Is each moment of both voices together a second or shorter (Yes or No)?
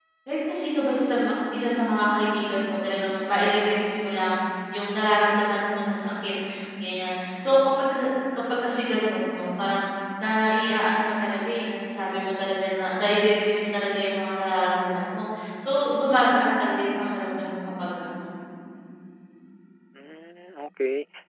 Yes